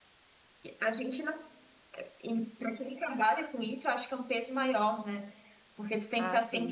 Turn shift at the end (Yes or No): No